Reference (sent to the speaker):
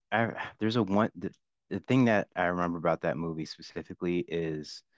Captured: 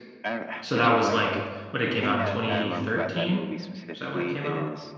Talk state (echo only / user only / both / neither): both